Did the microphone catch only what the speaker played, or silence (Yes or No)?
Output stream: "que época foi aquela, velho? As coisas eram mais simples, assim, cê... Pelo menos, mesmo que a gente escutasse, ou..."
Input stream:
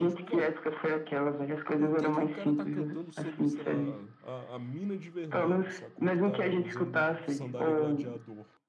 No